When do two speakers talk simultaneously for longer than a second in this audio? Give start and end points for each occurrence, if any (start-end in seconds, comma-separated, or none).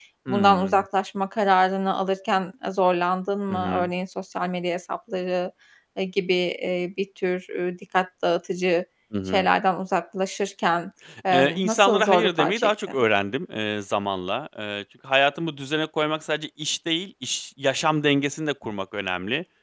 11.3-13.0